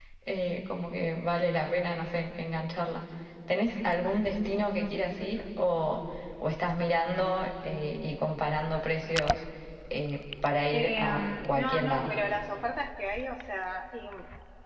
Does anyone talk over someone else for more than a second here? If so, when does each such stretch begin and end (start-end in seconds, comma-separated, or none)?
10.7-12.1